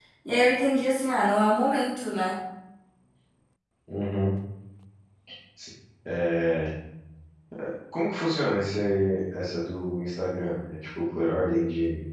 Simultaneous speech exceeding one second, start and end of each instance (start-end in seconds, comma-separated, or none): none